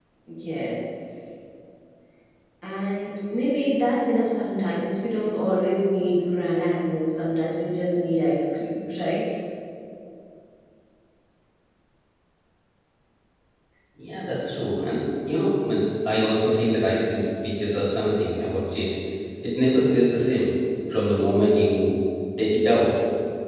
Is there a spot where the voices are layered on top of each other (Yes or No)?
No